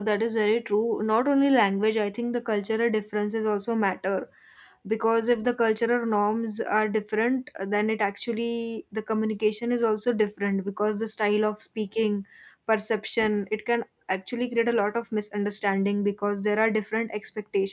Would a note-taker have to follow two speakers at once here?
No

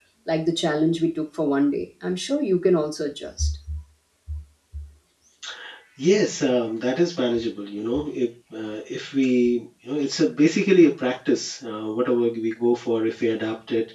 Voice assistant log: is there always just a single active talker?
Yes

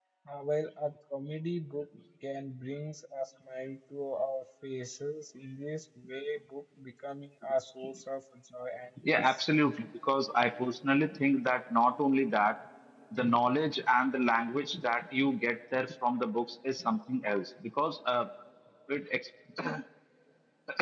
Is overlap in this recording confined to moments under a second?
Yes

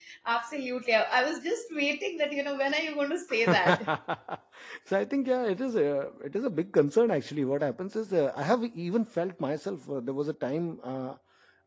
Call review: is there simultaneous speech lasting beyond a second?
No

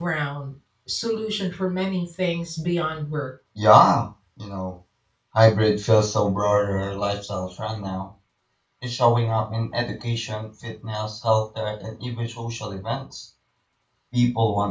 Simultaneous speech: No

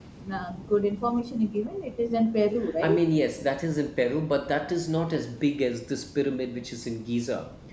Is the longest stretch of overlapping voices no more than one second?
Yes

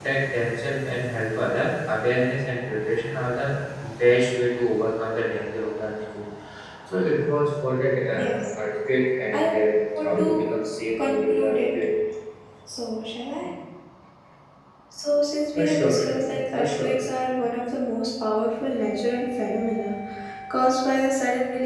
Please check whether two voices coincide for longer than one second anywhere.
Yes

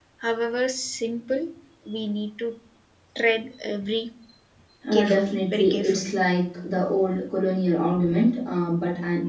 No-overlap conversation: No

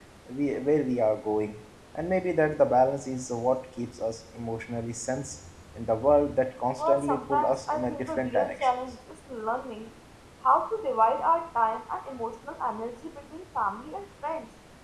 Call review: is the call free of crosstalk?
No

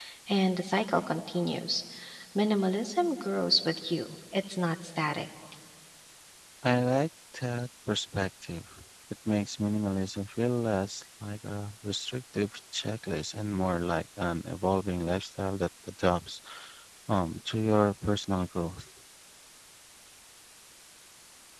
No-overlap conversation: Yes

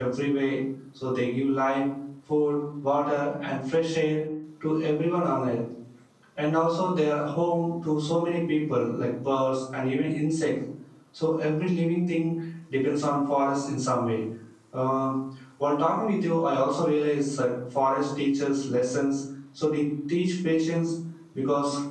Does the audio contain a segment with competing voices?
No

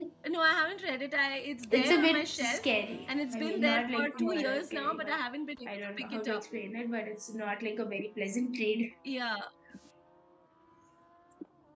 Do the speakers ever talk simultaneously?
Yes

